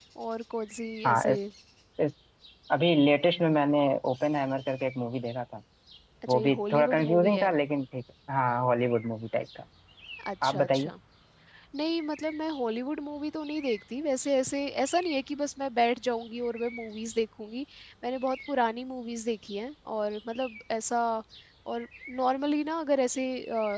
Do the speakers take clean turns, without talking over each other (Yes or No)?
No